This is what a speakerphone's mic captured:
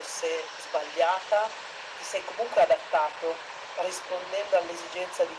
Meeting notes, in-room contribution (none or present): none